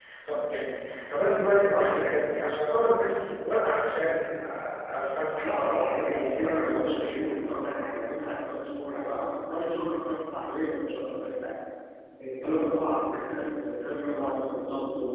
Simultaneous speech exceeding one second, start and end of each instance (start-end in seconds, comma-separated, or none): 5.4-7.3